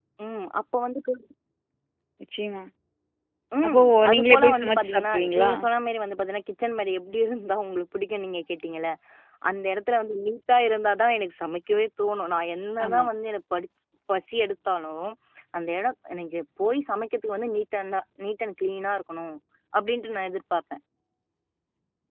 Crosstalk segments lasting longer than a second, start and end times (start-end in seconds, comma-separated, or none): 3.7-5.5